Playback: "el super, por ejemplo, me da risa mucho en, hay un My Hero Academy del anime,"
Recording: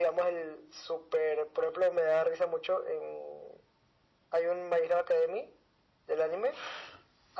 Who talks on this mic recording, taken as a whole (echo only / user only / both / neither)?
echo only